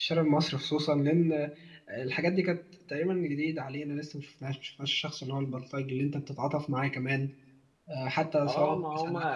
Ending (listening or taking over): taking over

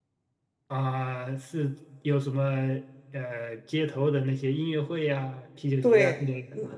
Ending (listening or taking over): taking over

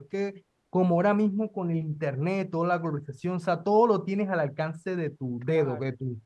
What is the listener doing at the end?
listening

